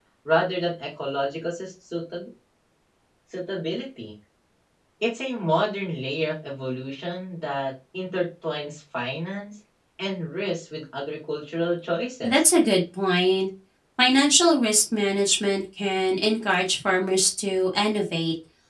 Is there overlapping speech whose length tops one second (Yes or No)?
No